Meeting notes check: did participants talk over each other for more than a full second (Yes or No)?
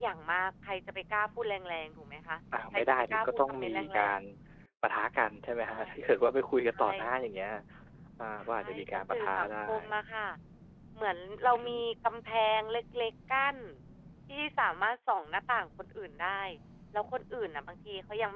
Yes